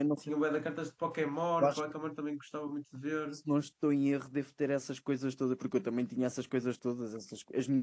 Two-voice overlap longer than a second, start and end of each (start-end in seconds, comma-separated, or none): none